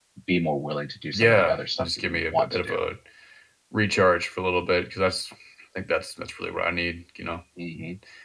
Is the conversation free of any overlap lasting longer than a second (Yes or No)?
No